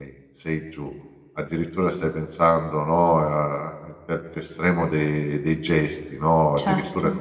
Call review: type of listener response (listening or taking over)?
listening